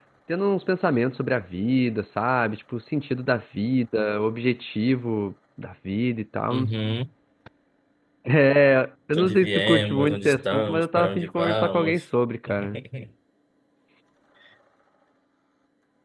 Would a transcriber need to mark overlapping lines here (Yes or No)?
Yes